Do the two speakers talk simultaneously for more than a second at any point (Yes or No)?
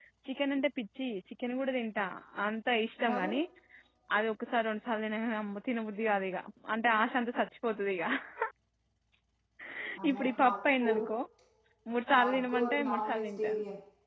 Yes